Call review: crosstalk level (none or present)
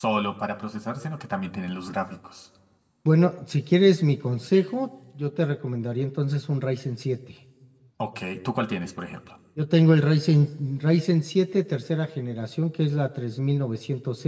none